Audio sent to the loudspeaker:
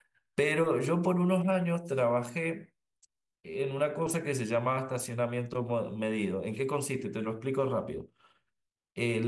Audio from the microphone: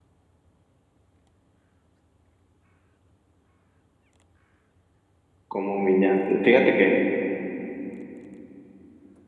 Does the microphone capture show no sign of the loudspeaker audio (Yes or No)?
Yes